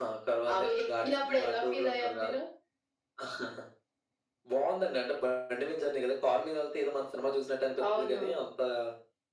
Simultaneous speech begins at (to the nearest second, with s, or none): 1 s